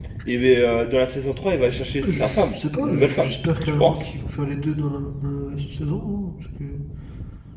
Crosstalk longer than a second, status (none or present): present